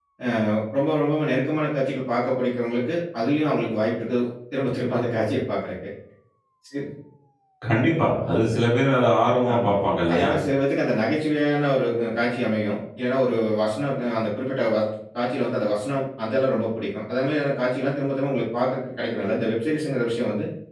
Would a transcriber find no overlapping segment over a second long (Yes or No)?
Yes